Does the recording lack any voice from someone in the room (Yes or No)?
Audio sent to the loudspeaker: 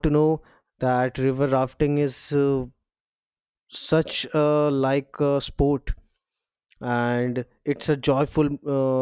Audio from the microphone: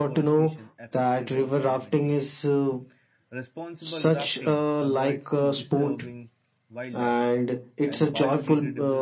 No